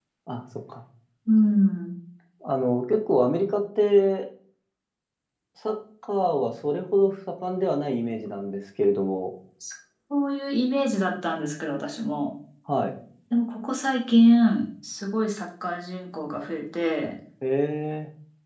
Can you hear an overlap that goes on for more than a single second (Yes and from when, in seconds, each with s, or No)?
No